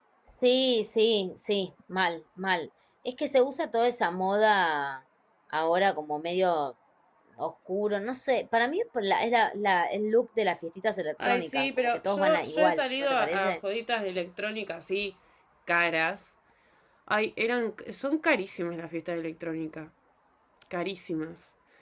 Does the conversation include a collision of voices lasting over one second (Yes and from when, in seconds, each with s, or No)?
Yes, from 11.2 s